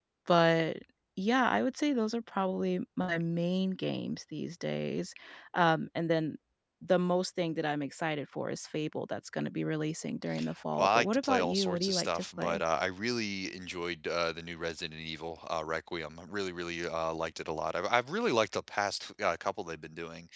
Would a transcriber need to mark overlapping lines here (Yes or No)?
Yes